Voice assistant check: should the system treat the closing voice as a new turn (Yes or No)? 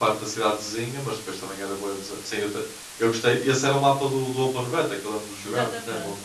Yes